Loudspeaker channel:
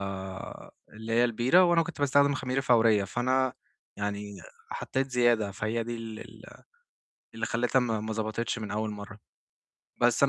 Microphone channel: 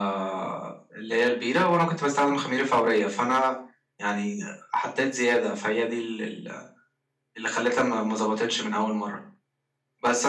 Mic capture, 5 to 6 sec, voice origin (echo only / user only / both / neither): echo only